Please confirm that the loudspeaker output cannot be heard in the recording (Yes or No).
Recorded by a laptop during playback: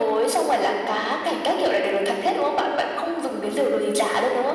No